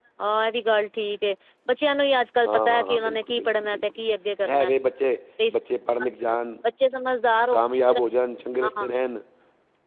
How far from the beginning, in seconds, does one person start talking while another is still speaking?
2.4 s

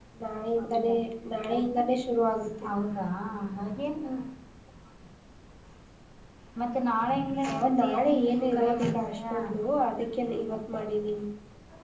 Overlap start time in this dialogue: 7.5 s

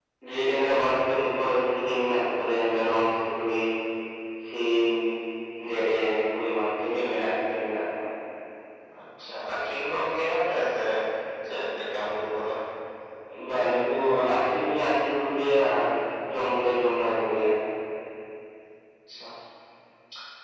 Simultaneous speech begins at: none

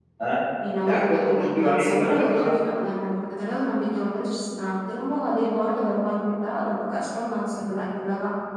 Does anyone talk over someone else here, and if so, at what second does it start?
0.9 s

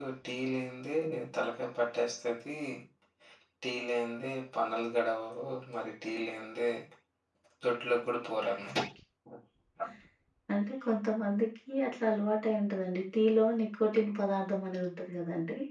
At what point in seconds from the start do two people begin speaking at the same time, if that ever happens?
none

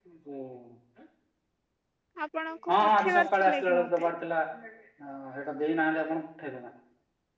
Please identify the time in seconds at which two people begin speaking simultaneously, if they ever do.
2.7 s

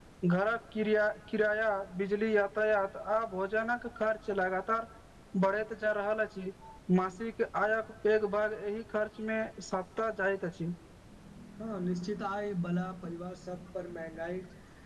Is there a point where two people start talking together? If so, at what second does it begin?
none

